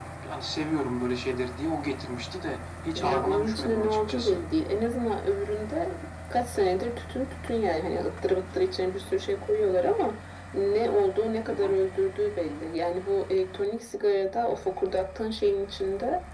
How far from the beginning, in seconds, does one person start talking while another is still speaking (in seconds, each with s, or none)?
3.0 s